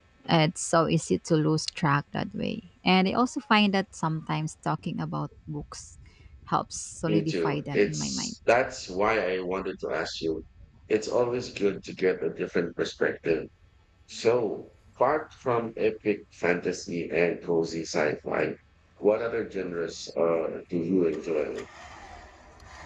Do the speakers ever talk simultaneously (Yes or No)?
Yes